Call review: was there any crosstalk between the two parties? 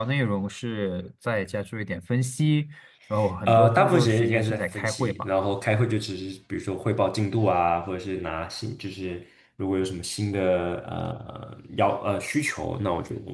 Yes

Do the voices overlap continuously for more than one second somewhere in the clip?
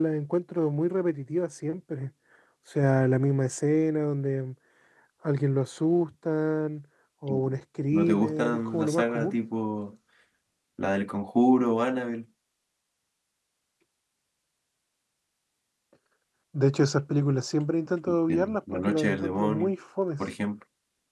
Yes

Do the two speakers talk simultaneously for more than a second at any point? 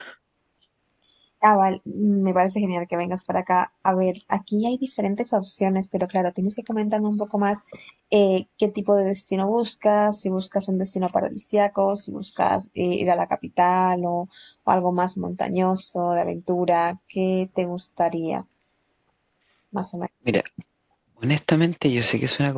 No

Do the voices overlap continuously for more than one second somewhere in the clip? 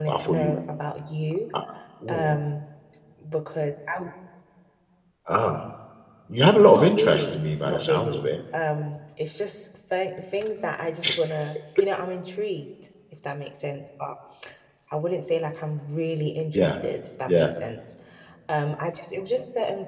Yes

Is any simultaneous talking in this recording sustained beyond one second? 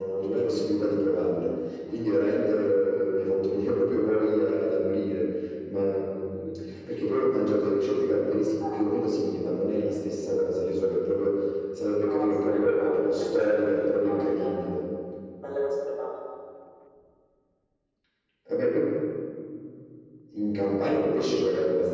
Yes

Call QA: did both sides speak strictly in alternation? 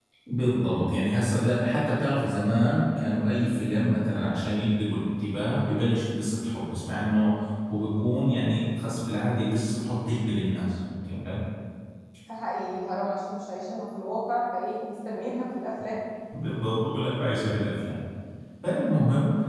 Yes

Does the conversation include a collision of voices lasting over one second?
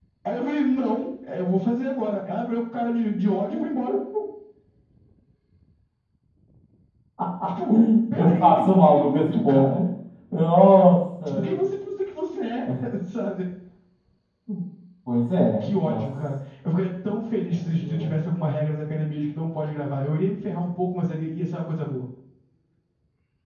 Yes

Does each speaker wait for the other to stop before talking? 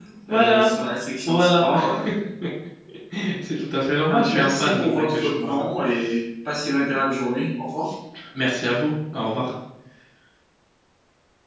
No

